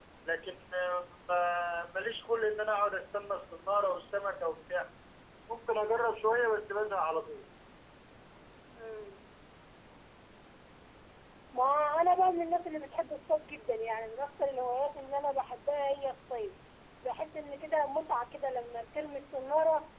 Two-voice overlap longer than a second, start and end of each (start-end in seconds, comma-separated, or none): none